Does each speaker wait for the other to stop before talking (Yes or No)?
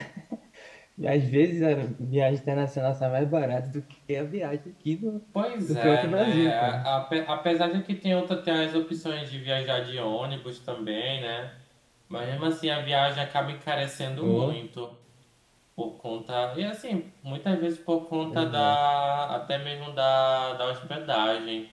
No